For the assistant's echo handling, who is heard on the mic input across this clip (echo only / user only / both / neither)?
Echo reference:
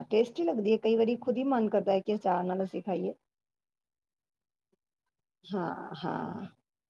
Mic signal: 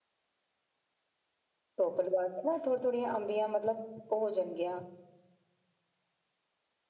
user only